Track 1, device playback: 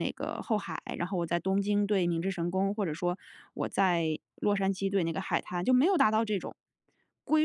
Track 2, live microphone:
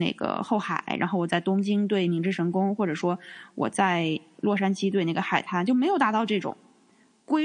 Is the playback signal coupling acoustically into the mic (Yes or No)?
Yes